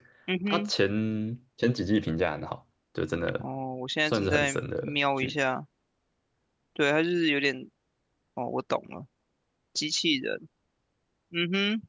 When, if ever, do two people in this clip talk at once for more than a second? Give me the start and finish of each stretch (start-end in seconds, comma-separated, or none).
4.1-5.3